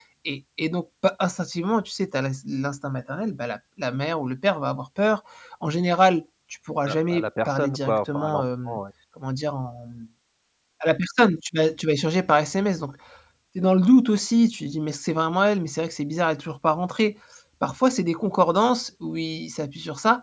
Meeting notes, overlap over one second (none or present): present